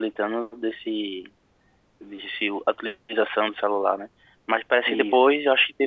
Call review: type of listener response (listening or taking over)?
listening